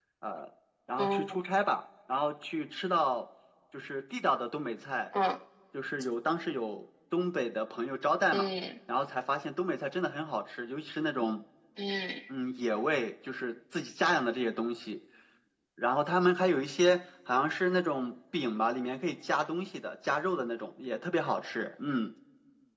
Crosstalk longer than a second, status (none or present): none